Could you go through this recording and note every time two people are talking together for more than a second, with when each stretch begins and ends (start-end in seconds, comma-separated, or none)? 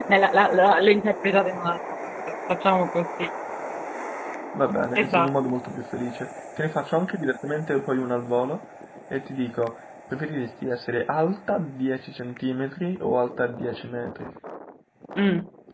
none